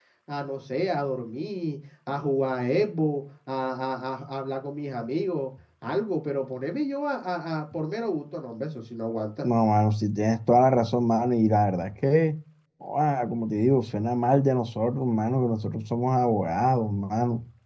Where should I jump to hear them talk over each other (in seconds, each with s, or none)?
none